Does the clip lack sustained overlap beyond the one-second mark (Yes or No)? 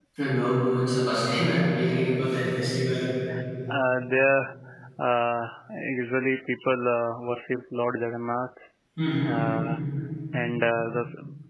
Yes